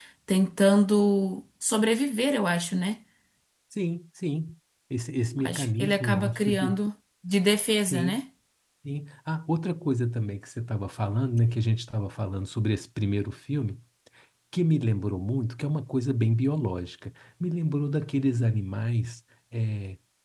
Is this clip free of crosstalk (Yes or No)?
No